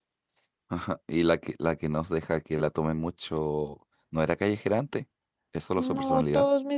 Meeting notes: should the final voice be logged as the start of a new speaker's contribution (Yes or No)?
Yes